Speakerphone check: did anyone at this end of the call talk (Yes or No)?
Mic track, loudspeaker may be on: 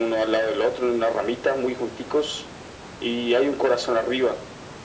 No